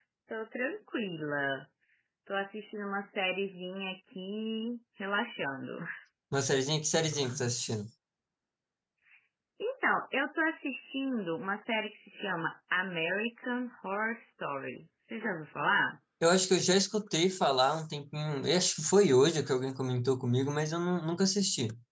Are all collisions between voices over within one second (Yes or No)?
Yes